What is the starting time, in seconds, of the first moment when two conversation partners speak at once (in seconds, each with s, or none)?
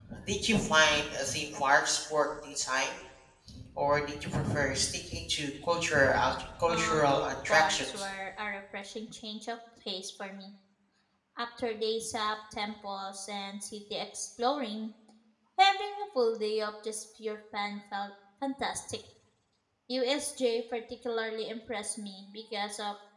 6.7 s